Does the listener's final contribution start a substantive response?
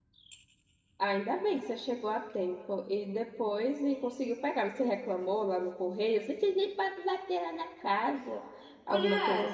Yes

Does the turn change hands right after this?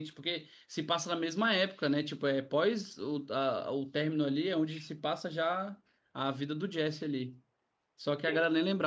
No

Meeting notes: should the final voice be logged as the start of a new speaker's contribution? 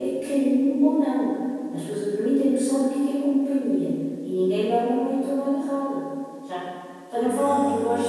No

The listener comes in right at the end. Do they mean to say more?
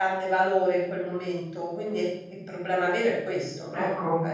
Yes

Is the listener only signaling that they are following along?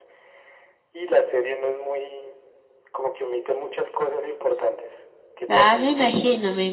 No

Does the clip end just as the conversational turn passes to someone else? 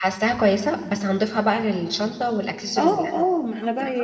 Yes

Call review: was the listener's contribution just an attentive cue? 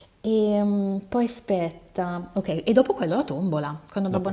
Yes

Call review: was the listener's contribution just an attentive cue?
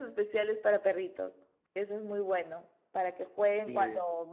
Yes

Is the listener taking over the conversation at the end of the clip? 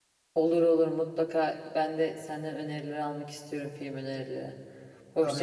Yes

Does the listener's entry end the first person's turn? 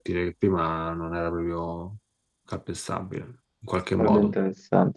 Yes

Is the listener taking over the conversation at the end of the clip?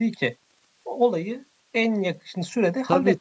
Yes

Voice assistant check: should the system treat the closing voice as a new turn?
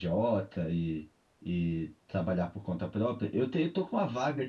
No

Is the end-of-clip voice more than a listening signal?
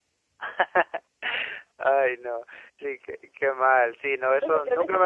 Yes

